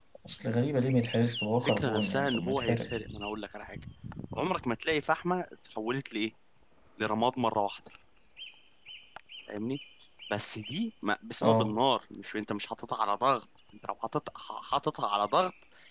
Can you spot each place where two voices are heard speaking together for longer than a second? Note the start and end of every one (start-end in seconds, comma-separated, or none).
1.6-2.9